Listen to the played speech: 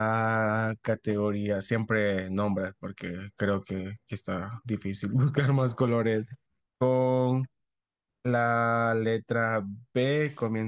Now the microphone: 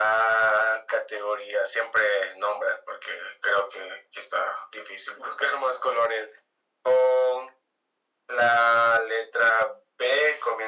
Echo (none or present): present